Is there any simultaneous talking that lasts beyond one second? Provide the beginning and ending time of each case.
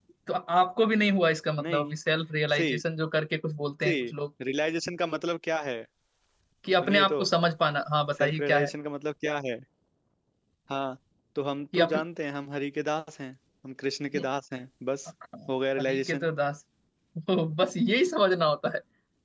none

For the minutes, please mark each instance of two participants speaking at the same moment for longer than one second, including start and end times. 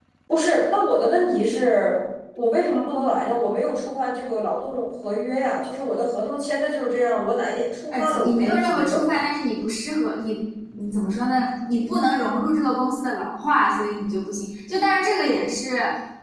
7.9-9.2

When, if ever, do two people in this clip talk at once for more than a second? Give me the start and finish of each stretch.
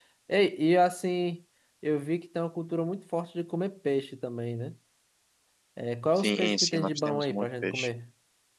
6.2-7.9

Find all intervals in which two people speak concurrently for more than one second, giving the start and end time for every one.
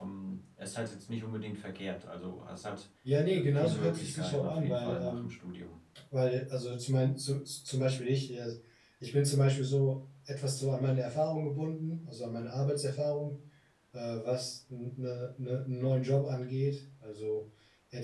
3.3-5.3

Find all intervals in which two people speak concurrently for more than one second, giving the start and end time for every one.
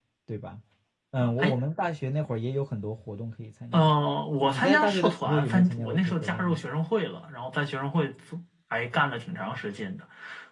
4.5-6.6

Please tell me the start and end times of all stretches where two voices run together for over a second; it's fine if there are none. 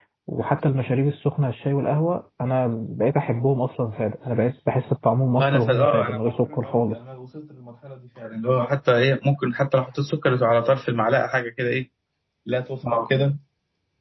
5.4-7.0

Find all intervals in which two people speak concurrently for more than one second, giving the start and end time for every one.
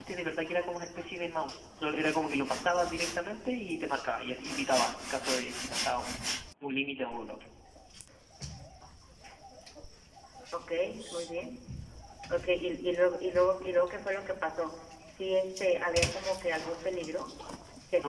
none

